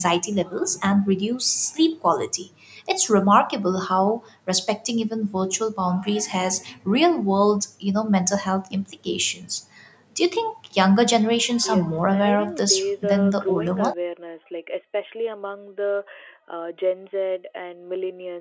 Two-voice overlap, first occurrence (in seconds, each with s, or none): 11.6 s